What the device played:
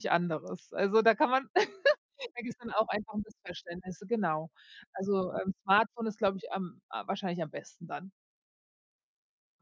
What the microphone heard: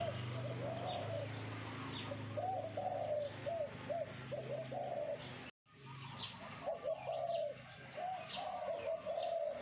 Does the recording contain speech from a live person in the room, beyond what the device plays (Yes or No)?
No